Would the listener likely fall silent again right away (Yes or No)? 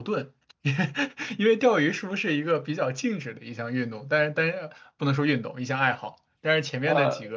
Yes